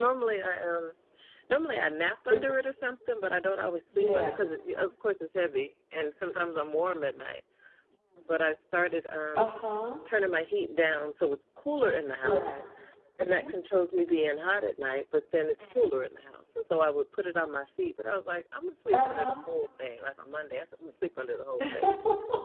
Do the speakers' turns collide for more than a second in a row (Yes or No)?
No